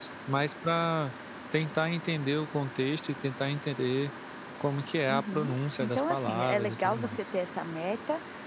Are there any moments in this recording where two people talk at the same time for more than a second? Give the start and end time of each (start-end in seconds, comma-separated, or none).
5.1-7.2